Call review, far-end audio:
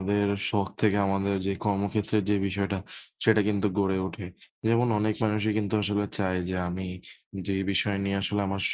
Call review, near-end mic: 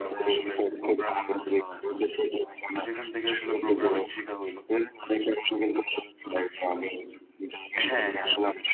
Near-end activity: present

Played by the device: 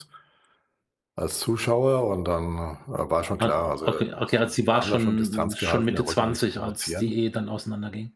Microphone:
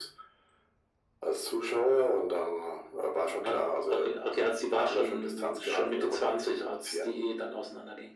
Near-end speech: none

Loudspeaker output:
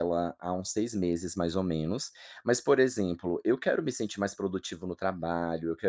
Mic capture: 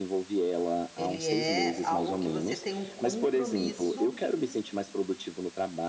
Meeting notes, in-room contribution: present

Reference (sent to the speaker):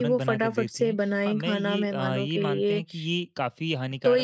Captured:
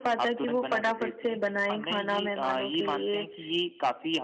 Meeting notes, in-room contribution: none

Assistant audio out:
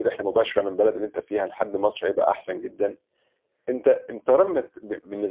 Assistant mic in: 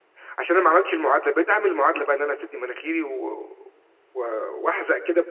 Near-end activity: present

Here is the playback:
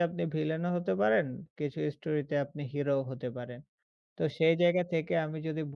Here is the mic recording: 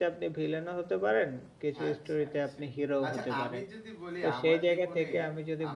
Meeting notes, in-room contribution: present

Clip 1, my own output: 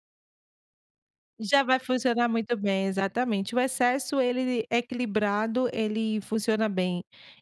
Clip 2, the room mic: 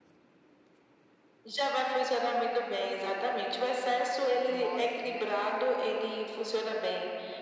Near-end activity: present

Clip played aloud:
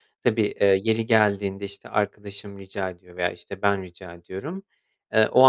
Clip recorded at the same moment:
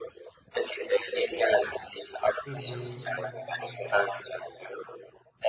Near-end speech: present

